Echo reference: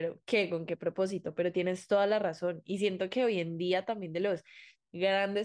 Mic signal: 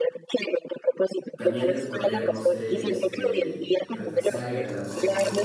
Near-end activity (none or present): present